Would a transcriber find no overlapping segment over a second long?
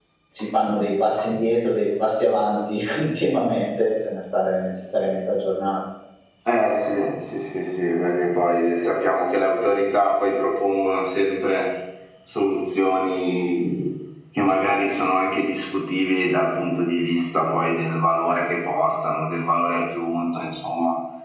Yes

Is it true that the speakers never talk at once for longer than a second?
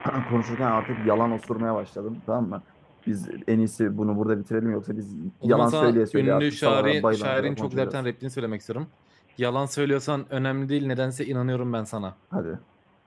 No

